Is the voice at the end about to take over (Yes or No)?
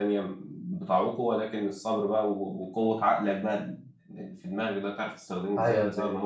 No